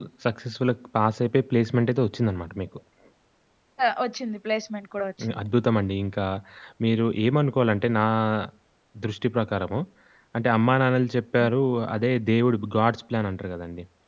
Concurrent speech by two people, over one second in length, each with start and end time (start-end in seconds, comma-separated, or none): none